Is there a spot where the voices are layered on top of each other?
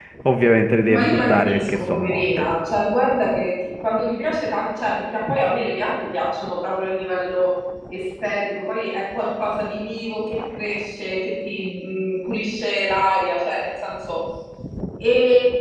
Yes, from 0.9 s

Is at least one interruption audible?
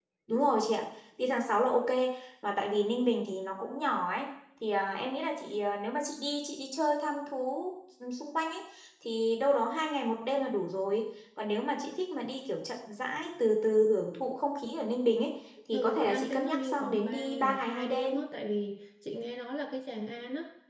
Yes, from 15.7 s

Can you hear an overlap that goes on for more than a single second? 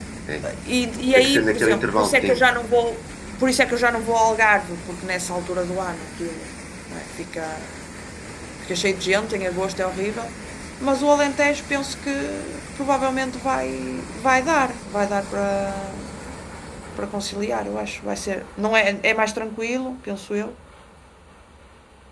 Yes, from 1.1 s

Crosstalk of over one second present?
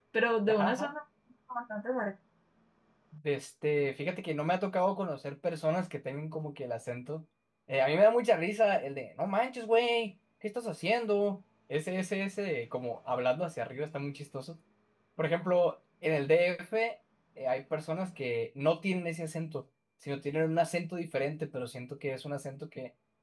No

